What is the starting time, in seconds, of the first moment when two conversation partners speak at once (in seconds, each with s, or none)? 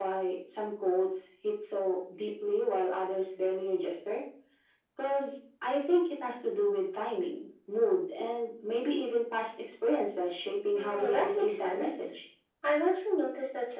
10.7 s